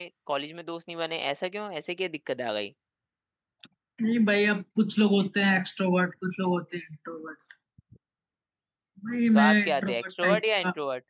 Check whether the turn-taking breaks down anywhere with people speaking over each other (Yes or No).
Yes